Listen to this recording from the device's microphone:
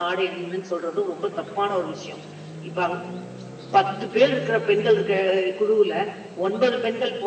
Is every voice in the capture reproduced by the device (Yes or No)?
No